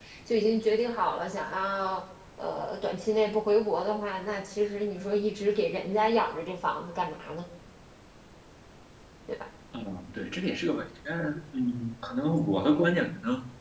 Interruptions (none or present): none